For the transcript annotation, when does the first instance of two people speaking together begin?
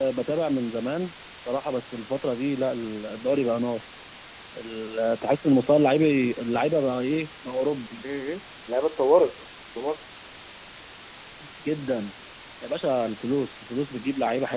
none

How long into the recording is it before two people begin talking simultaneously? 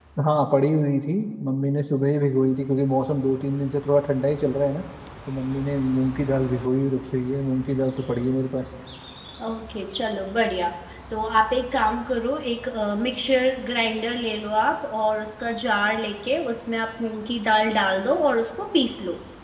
none

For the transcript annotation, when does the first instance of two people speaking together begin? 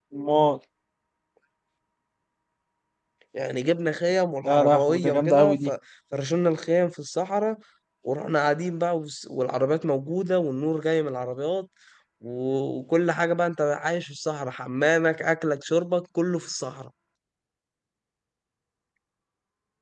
4 s

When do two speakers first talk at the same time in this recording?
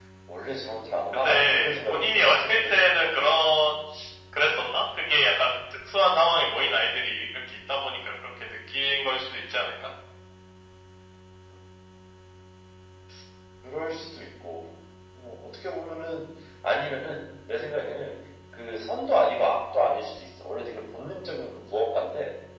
1 s

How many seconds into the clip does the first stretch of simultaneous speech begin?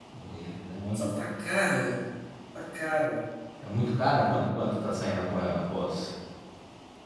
none

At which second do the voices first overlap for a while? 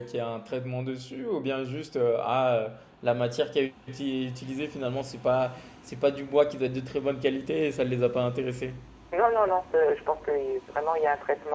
none

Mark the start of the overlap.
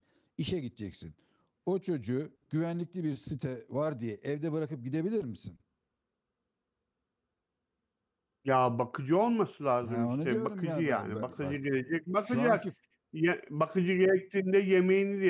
10 s

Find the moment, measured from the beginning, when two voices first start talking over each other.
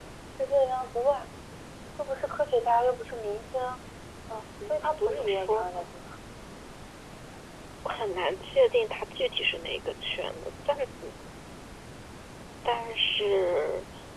5 s

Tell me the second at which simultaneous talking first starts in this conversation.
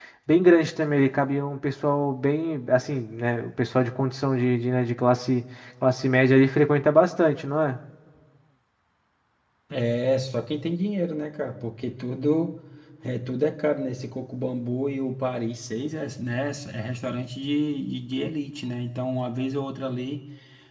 none

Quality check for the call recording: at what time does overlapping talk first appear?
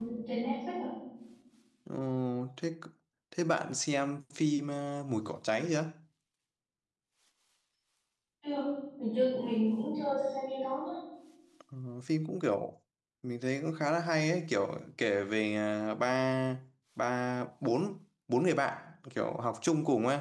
none

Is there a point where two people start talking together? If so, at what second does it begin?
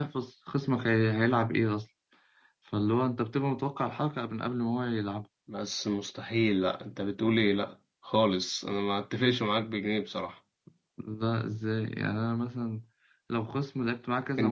none

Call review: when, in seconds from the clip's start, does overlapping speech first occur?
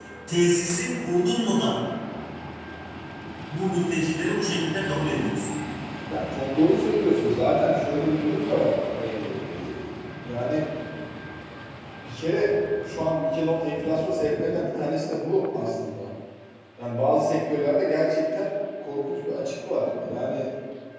none

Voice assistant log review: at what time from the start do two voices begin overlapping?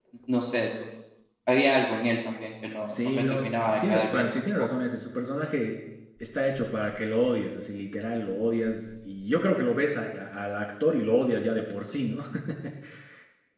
3 s

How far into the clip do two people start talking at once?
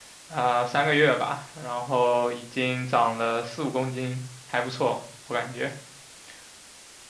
none

